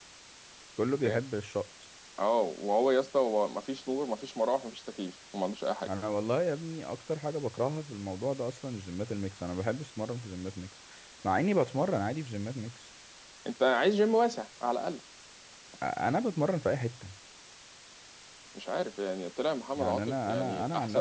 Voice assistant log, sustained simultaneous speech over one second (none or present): present